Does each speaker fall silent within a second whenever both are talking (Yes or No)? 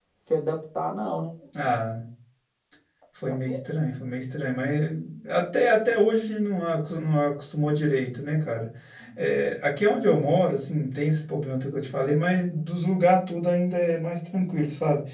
Yes